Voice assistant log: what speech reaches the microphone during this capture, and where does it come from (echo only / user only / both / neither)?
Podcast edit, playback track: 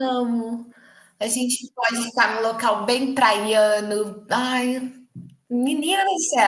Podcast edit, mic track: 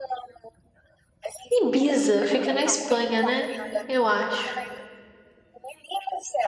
both